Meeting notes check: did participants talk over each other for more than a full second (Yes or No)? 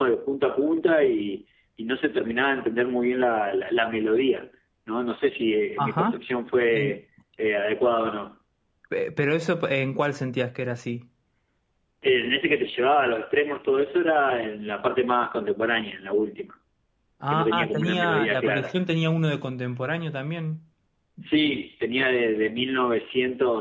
Yes